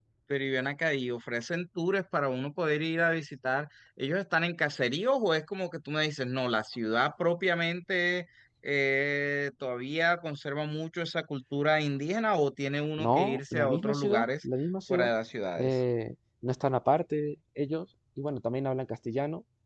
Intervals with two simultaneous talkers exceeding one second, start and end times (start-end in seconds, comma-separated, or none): 13.0-14.3